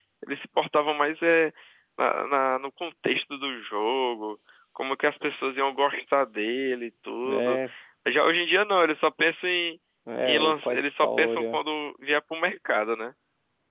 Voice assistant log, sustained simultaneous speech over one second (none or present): present